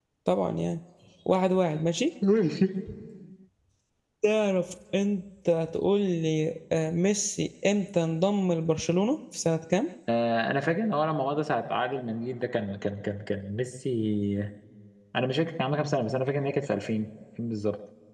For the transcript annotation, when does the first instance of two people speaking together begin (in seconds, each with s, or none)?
none